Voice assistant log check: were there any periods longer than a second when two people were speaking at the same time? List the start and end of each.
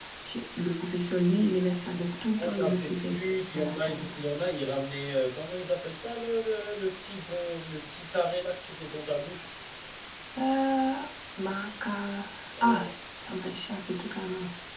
2.4-4.0

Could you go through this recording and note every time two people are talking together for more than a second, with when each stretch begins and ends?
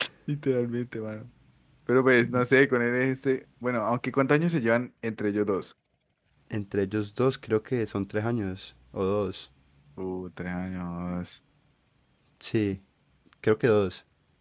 none

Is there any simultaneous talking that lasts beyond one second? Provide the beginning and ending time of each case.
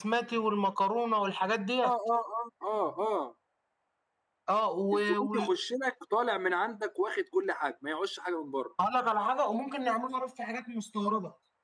none

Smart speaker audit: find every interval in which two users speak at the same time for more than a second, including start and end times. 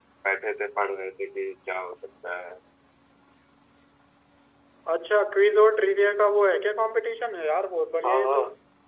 none

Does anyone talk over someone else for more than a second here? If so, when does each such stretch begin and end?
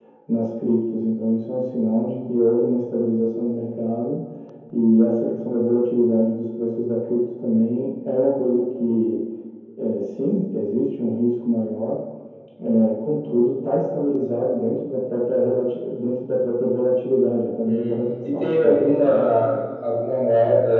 17.6-19.2

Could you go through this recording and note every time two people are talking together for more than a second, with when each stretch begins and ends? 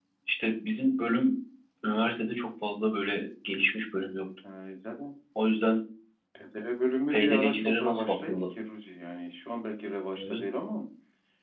7.1-8.3

